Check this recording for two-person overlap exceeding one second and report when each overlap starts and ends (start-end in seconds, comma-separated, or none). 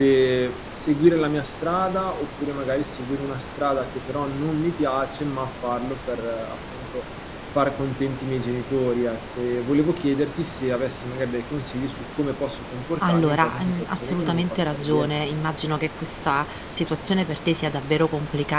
13.1-15.1